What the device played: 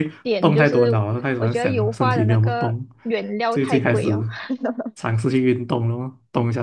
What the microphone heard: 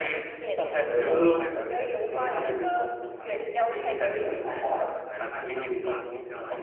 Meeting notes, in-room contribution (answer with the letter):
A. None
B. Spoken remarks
B